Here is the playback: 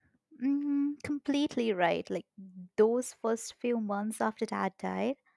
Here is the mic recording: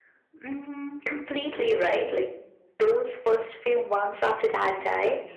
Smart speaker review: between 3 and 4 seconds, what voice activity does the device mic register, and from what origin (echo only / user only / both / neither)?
echo only